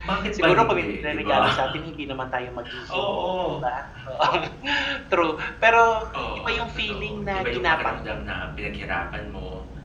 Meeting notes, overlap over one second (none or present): present